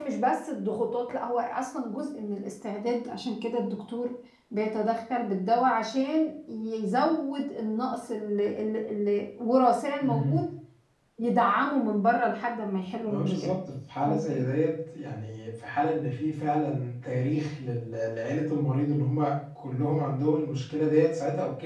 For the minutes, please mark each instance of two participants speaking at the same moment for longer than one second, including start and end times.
none

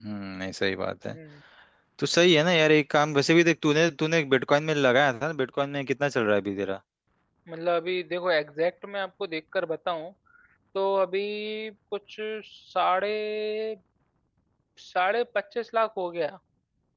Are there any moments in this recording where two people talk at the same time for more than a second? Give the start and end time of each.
none

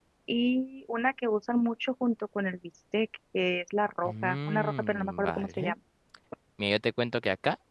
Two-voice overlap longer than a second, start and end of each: 4.0-5.7

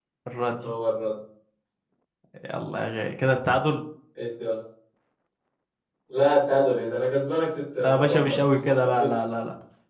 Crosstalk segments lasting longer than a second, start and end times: 7.8-9.1

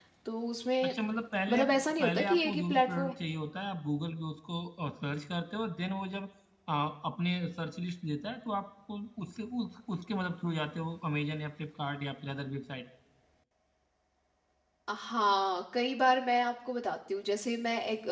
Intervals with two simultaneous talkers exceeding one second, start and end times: 1.5-3.1

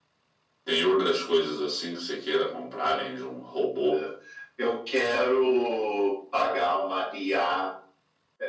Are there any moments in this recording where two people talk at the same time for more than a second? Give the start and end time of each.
none

